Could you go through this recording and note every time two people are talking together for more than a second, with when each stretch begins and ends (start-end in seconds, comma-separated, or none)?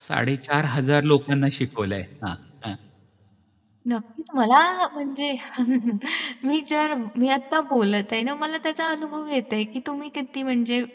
none